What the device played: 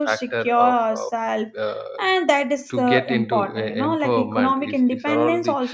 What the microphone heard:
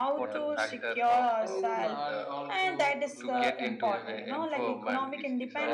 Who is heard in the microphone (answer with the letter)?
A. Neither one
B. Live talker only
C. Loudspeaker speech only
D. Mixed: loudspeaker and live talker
D